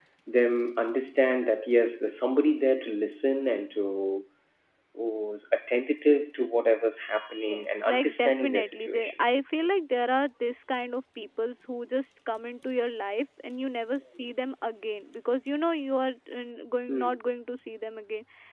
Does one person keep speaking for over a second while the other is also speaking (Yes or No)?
Yes